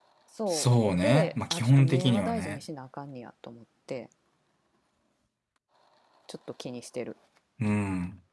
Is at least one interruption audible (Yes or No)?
Yes